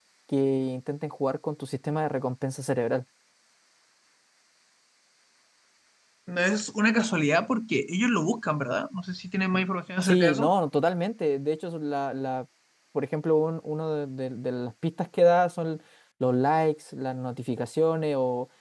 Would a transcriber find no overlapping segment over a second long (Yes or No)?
Yes